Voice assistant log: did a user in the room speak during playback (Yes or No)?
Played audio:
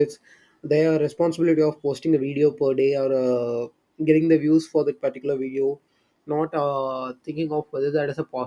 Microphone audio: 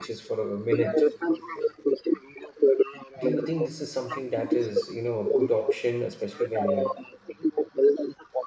Yes